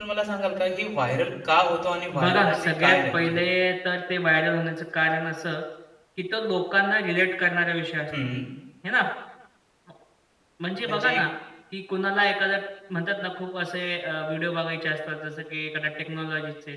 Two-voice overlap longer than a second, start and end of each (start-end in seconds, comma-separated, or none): 2.2-3.4